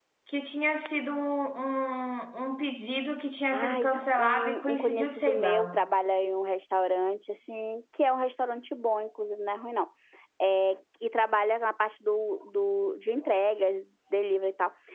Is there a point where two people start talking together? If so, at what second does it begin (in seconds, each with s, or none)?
3.5 s